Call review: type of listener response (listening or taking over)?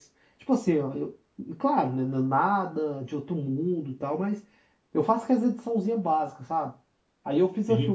listening